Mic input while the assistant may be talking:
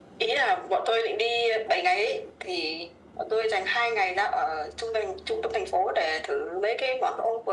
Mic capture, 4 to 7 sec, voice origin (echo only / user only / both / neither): echo only